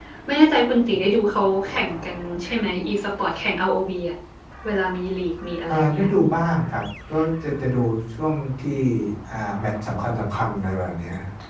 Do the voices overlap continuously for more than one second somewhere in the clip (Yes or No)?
No